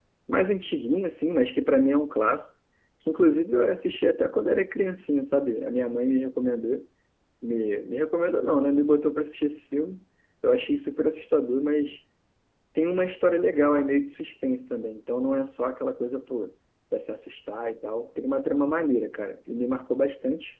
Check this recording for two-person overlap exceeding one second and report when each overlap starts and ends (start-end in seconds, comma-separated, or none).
none